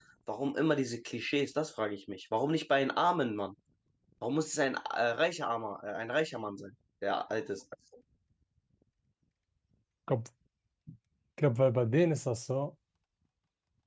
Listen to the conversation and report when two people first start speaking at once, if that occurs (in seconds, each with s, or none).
none